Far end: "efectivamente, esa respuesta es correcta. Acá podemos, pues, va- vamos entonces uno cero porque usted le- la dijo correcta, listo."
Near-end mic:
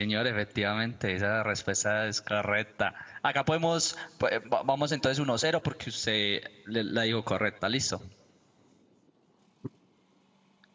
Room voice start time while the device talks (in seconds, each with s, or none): none